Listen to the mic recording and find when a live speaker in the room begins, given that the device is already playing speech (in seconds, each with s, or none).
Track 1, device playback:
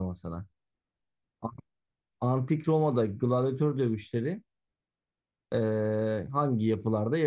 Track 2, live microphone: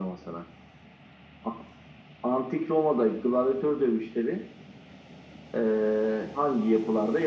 none